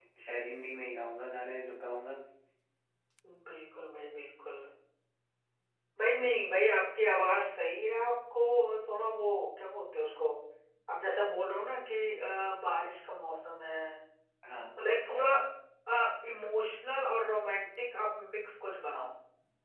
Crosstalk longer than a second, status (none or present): none